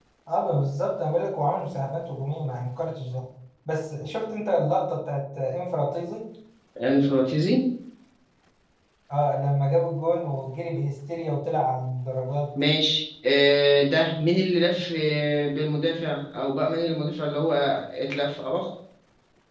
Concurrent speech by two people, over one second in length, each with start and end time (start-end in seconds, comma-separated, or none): none